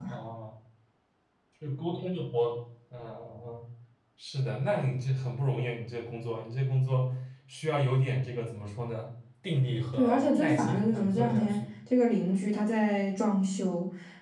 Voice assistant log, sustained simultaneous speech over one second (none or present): present